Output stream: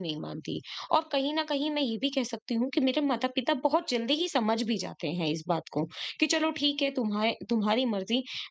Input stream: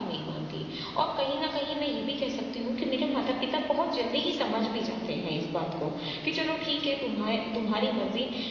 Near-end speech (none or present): none